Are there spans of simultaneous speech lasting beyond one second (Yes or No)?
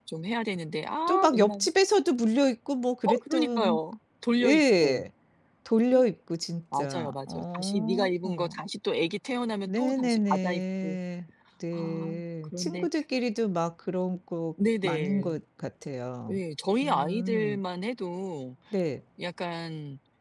Yes